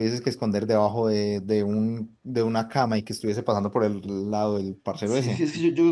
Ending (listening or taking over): taking over